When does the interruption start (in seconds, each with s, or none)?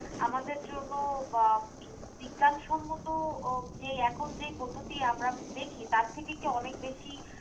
none